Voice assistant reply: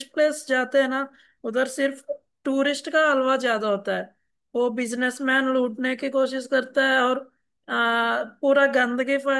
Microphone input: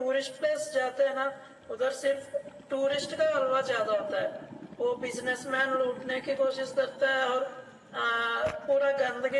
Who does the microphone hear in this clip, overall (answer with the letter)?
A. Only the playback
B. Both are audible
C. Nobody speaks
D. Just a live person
A